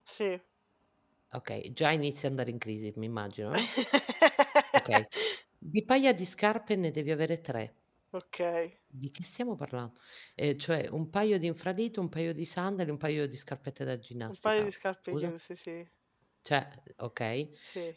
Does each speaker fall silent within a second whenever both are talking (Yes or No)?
Yes